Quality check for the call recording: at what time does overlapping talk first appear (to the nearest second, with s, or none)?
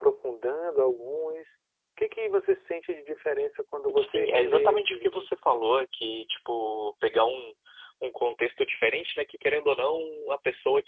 4 s